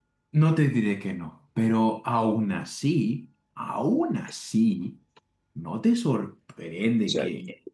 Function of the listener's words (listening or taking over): listening